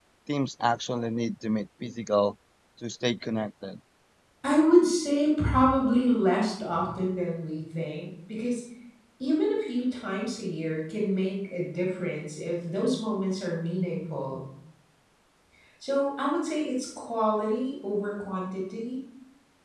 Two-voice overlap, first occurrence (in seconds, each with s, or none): none